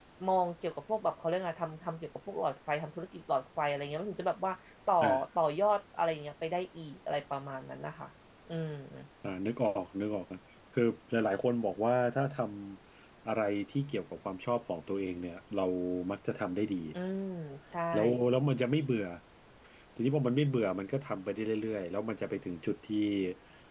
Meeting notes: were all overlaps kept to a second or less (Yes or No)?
Yes